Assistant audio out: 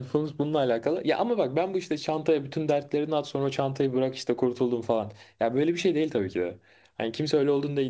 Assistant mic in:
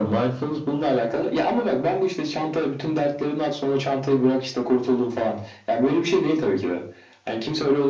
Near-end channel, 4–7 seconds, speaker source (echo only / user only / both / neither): echo only